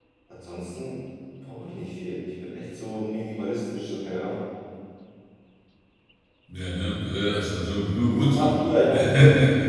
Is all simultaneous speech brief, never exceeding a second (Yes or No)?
Yes